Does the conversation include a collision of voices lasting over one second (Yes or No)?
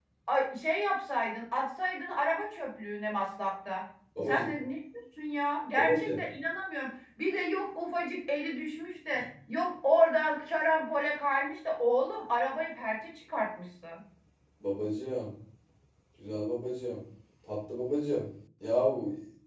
No